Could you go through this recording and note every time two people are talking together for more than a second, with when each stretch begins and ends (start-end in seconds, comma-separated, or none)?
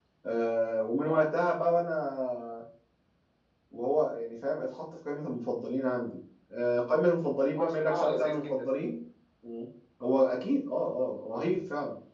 7.5-8.8